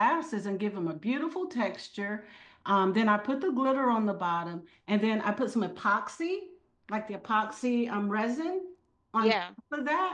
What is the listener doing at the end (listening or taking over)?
listening